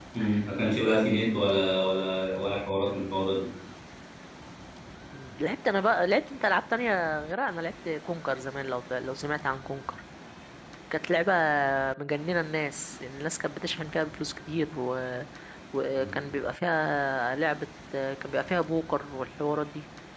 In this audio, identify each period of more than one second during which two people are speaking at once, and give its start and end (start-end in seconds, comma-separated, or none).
none